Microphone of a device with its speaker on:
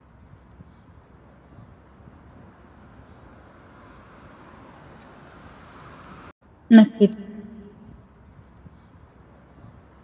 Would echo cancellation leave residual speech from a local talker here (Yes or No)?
Yes